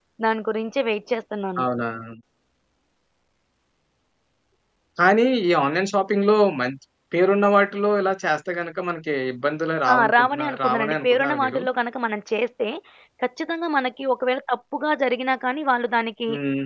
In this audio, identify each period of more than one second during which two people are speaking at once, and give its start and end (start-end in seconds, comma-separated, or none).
9.9-11.6